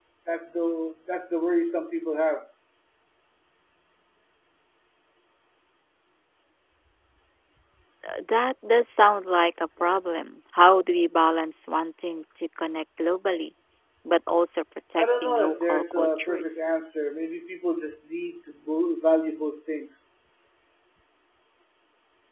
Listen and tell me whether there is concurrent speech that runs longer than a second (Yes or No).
Yes